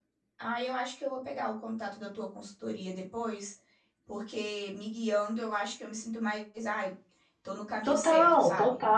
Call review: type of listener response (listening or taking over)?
taking over